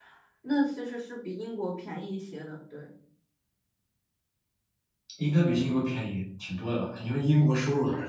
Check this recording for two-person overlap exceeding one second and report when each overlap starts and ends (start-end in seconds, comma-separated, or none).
none